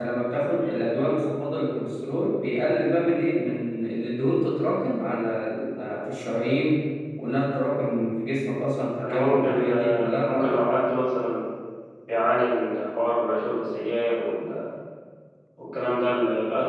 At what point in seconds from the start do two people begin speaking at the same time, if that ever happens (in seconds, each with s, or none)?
9.0 s